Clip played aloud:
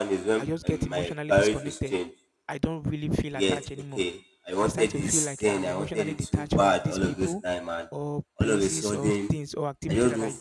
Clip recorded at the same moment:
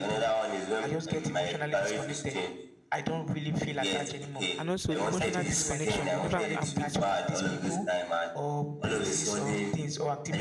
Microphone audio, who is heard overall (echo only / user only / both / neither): both